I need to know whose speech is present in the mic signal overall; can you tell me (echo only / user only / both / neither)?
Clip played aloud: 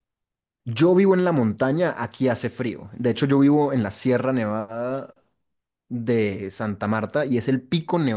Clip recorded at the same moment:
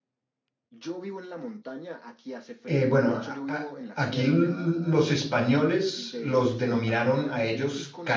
both